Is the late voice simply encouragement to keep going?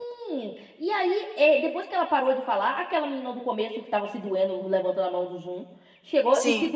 Yes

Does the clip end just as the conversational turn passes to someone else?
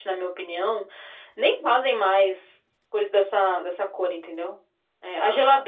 No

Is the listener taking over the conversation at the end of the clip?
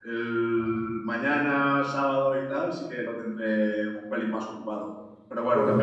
No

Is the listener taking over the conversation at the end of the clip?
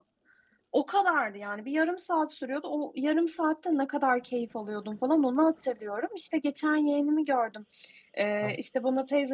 No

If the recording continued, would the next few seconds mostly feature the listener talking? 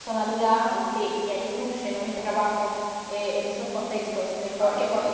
No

